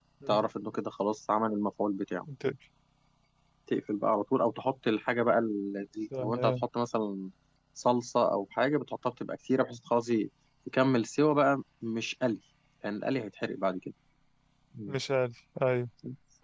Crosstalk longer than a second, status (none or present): none